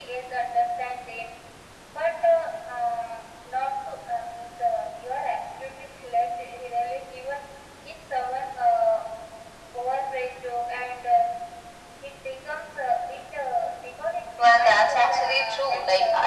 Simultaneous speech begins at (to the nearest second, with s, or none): 14 s